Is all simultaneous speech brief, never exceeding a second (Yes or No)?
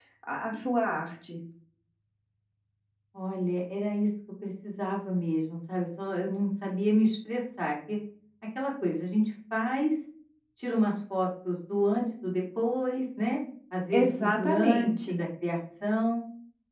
No